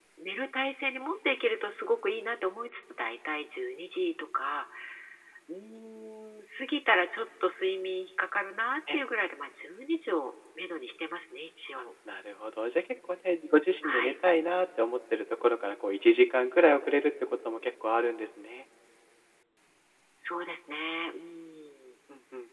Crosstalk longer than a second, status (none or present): none